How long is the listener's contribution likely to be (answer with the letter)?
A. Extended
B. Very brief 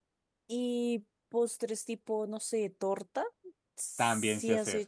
A